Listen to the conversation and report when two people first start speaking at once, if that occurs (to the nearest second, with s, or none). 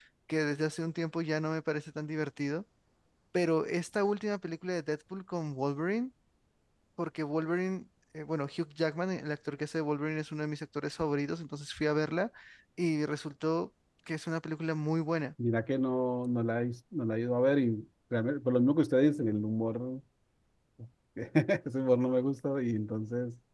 none